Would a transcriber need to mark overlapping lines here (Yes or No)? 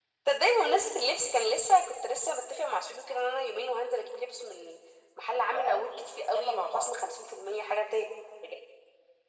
Yes